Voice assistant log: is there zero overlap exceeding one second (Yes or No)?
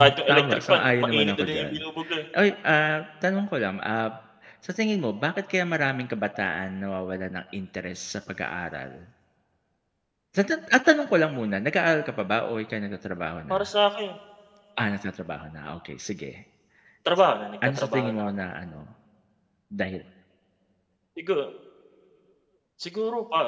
No